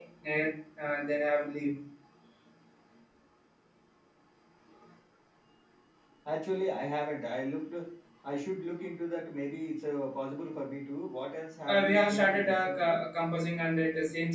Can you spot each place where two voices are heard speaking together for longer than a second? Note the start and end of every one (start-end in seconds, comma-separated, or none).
11.7-13.0